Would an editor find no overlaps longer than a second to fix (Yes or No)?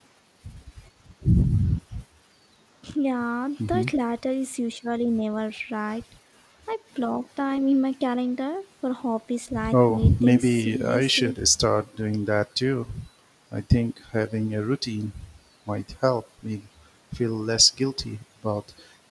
No